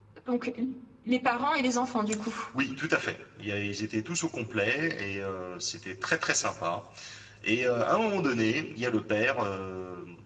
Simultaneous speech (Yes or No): No